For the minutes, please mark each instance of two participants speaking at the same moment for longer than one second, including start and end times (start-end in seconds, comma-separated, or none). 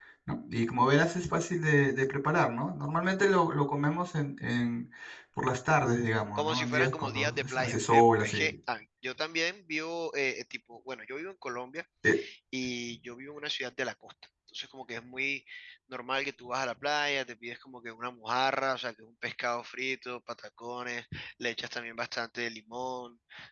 6.3-8.5